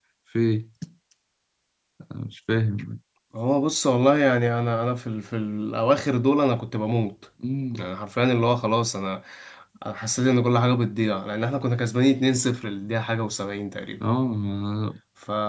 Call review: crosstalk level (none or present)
none